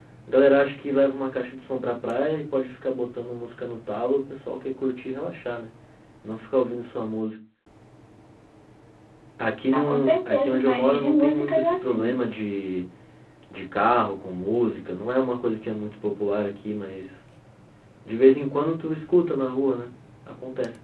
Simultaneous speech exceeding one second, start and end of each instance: 9.7-12.2

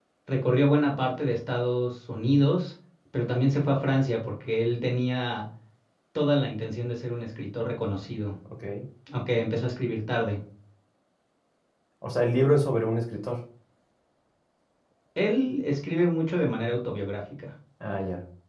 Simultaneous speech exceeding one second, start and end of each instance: none

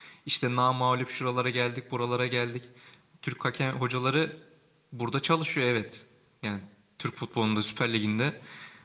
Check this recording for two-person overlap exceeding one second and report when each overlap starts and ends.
none

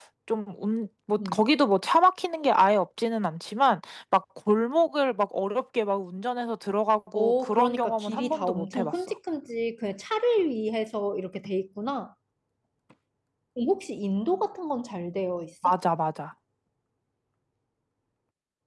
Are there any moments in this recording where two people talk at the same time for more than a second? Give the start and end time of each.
7.1-8.9

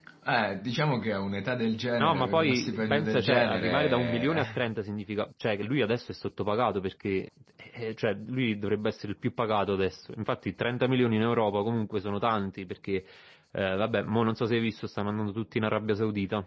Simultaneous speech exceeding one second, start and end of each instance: 1.9-4.6

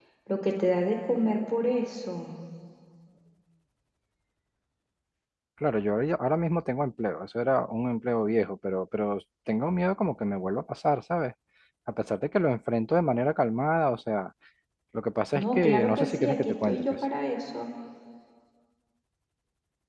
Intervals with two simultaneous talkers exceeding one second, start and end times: 15.3-16.9

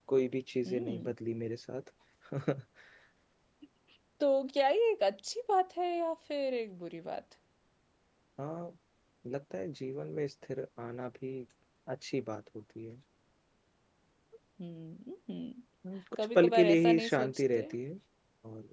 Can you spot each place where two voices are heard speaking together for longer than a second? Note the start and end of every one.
16.2-17.6

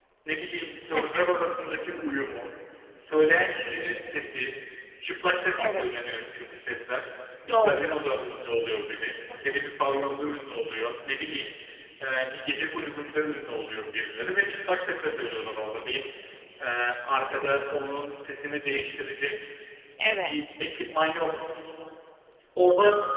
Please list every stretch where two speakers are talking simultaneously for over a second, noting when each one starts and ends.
none

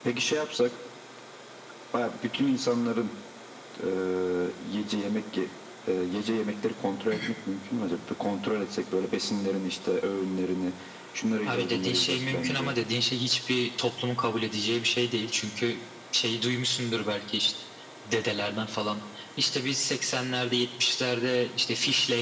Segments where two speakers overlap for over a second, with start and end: 11.4-12.8

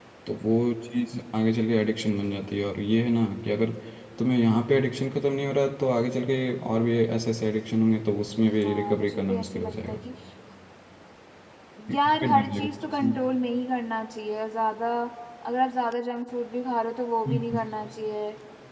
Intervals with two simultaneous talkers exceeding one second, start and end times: 8.6-10.0, 11.9-13.2

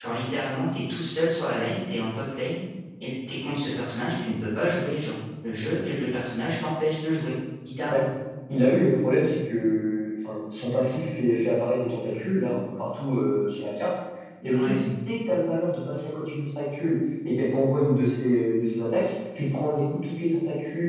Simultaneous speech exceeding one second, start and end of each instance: none

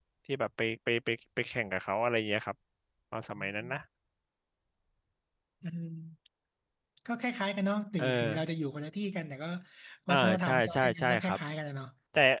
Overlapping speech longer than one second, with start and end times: 10.1-11.4

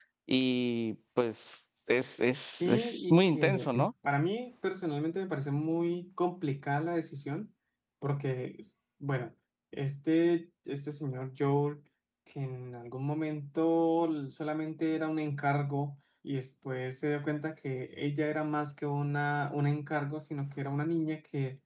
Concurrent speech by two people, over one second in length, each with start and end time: 2.5-3.9

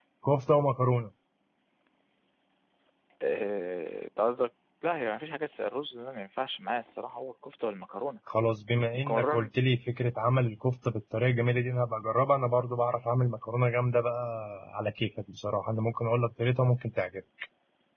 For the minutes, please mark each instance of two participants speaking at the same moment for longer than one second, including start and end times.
none

